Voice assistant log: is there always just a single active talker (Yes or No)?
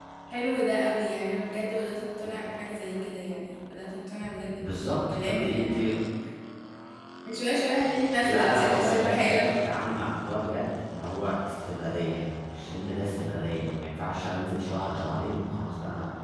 No